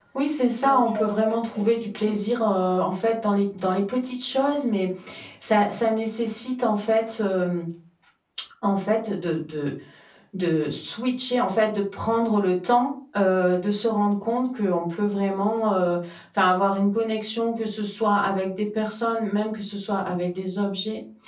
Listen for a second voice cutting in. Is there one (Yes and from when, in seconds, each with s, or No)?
Yes, from 0.6 s